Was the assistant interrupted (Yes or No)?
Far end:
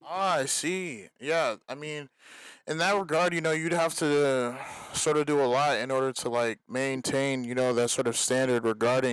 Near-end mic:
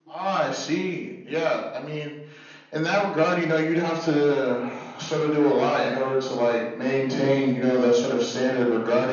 No